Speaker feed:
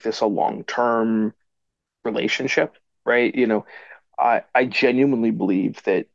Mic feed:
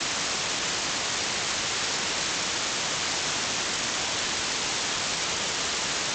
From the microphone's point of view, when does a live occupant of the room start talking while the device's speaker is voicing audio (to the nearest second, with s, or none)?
none